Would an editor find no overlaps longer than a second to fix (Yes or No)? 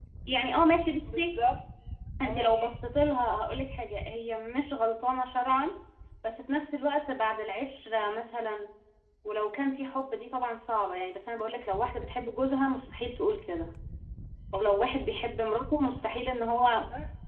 Yes